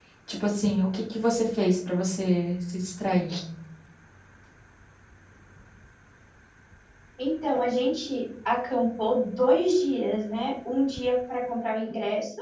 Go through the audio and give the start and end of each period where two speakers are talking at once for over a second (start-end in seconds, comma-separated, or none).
none